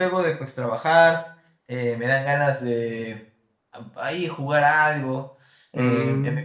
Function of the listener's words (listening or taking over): listening